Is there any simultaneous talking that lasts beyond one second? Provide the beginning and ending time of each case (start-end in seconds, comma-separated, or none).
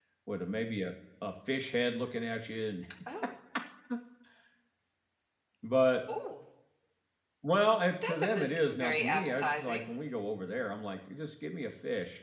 8.1-9.9